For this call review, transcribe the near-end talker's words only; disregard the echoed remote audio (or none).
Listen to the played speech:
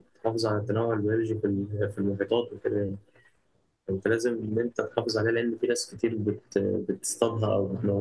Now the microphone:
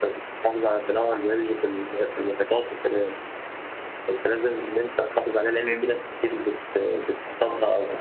فاهمني